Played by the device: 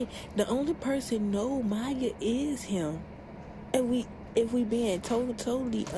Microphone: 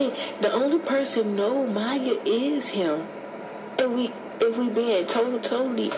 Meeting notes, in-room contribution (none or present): none